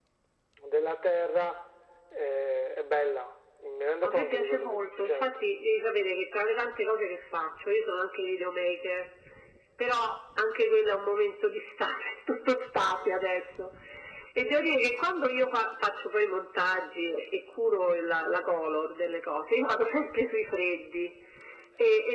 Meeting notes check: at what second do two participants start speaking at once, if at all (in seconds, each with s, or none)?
4.0 s